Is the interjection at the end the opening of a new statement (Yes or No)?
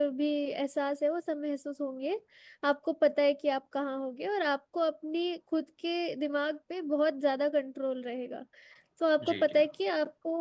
No